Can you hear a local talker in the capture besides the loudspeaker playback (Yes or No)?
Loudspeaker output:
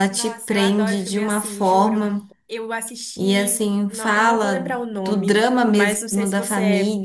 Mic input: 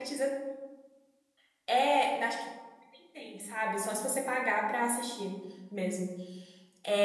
Yes